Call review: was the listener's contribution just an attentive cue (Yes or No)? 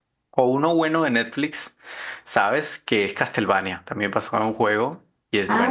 No